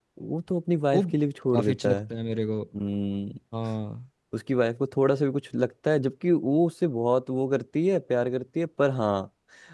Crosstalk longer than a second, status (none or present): none